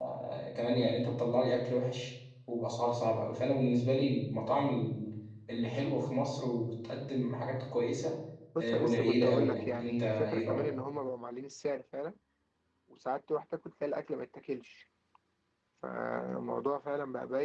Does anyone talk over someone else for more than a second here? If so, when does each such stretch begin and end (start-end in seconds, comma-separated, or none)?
8.6-10.7